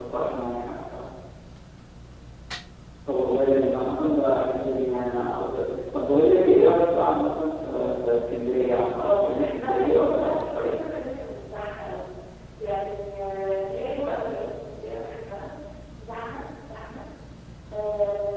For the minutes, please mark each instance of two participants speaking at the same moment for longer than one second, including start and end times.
9.0-10.7

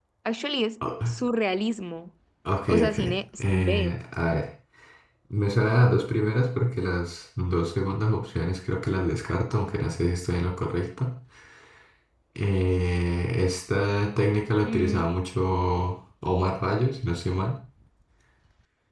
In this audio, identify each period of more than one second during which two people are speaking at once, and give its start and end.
2.7-4.0

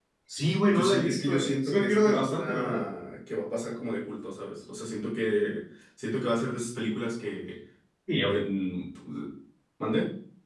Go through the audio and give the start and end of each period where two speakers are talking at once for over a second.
0.7-2.9

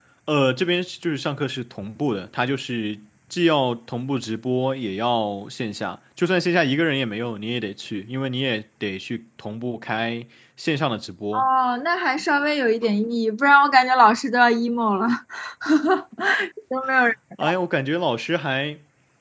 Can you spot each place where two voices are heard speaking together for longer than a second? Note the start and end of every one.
none

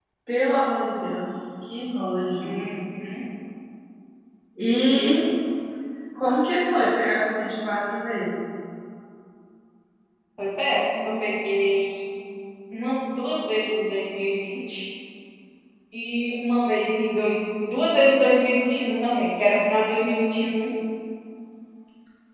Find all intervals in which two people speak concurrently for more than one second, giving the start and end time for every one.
none

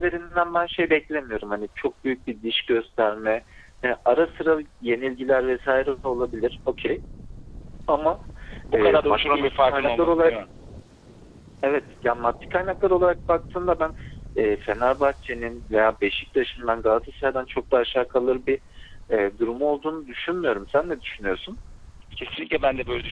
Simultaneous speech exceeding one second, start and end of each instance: 8.7-10.3

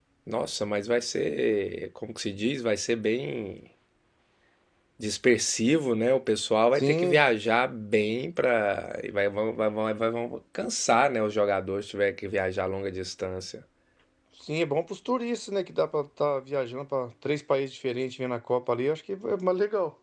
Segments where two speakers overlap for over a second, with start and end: none

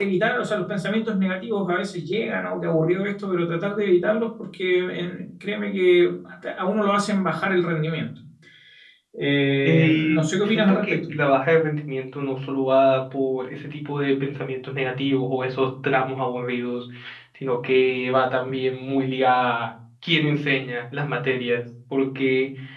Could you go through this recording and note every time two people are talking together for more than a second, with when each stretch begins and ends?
9.6-11.0

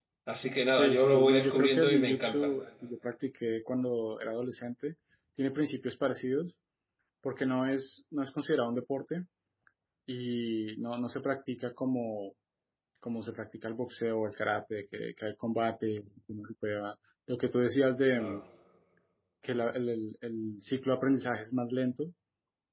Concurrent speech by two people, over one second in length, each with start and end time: 0.7-2.5

